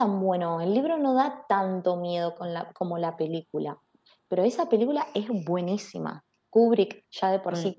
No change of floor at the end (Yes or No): Yes